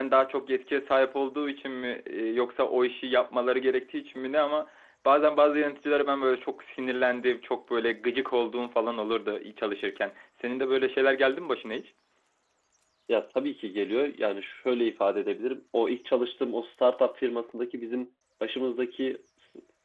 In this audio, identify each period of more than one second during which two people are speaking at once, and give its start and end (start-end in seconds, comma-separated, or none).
none